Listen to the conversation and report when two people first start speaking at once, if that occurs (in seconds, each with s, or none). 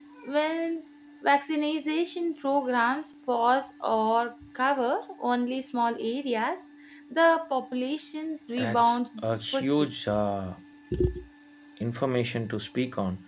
8.6 s